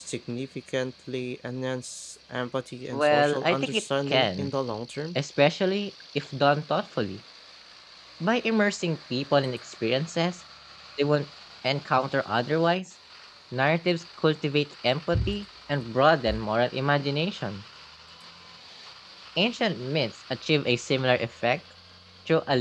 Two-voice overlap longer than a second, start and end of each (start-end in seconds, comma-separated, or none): 2.9-4.5